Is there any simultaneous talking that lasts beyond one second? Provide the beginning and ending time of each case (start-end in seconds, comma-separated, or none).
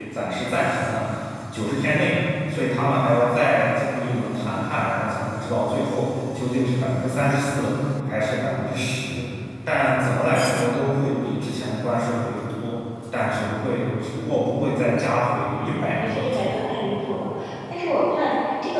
15.5-16.8